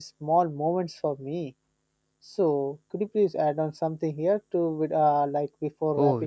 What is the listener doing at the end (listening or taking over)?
taking over